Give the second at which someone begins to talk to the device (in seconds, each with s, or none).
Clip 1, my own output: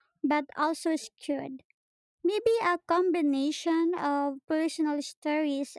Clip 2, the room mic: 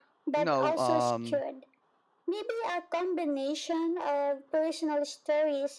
0.3 s